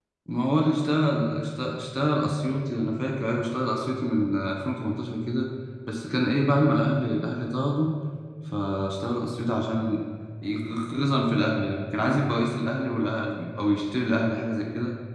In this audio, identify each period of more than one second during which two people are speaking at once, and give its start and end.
none

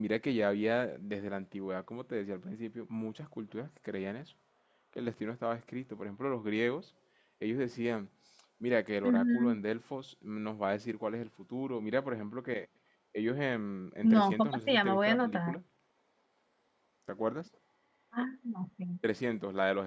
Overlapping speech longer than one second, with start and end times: 14.0-15.6

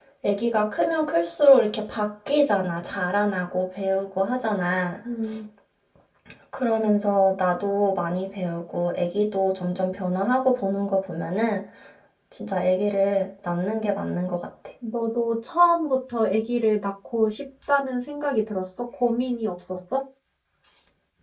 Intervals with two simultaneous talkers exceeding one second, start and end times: none

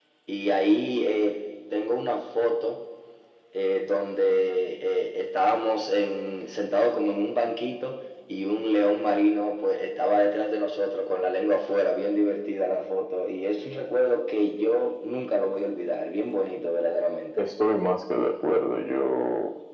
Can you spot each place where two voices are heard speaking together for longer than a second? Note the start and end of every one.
none

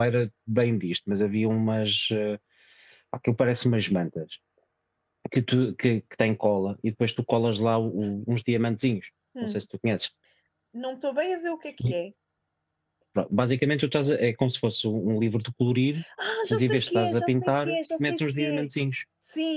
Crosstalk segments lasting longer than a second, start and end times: 16.5-18.7

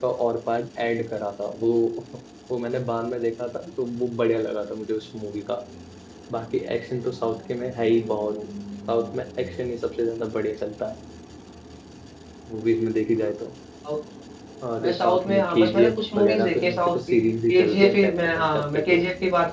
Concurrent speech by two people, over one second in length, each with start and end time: 14.8-17.1, 17.5-19.0

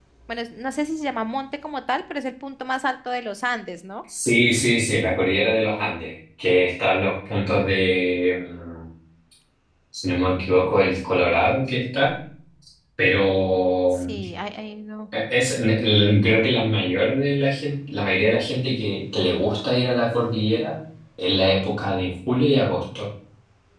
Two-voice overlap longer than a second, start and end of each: none

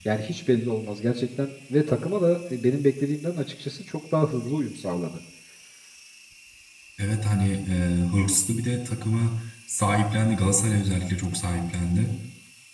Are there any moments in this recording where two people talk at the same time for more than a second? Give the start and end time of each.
none

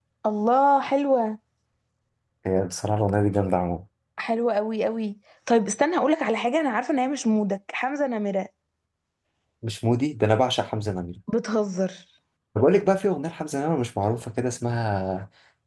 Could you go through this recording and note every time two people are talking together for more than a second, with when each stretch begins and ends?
none

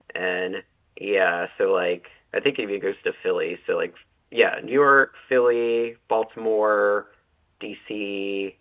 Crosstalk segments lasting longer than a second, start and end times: none

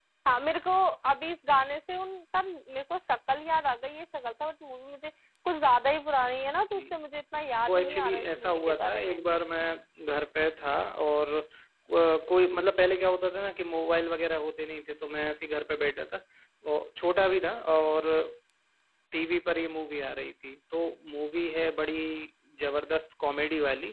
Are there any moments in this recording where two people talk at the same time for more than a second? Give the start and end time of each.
7.7-9.2

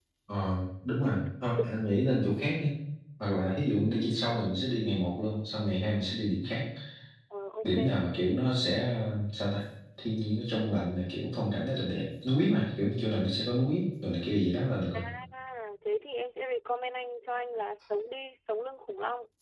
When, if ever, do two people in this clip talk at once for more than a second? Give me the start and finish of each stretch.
none

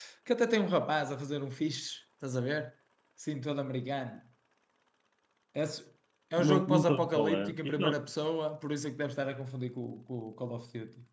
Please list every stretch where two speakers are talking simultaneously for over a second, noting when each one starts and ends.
6.4-8.1

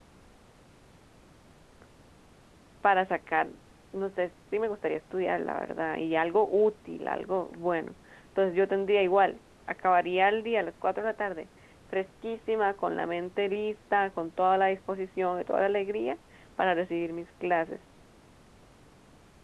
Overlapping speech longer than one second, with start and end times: none

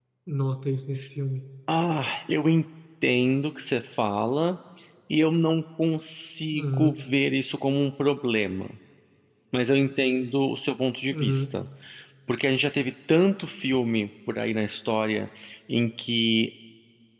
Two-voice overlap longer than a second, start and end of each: none

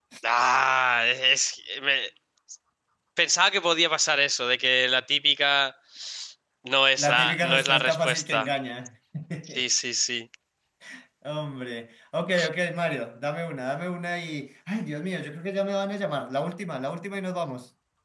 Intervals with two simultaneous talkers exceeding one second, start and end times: 7.0-8.5

